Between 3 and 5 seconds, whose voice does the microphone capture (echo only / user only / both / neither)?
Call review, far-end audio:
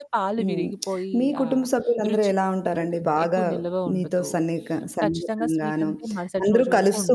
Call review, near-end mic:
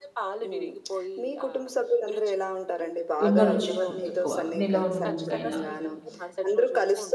both